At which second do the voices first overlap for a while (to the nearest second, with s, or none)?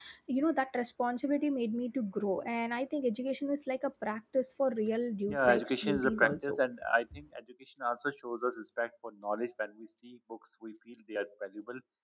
5 s